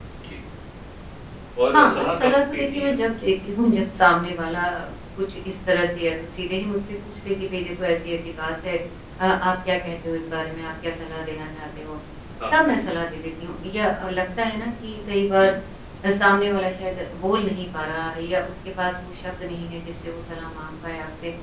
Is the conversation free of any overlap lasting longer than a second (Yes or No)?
No